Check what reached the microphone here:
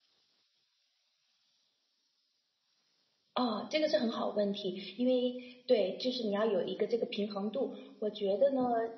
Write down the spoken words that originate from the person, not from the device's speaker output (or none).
none